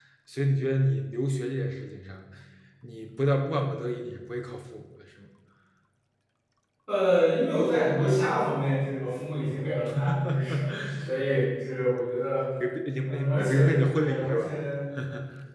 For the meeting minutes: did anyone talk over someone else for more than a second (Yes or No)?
Yes